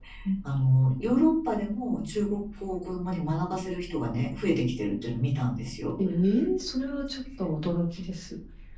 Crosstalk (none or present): none